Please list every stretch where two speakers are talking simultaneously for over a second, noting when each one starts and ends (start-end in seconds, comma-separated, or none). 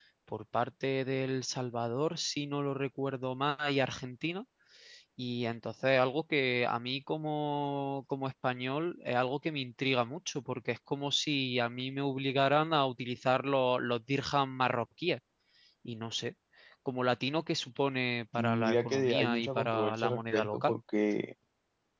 18.4-20.7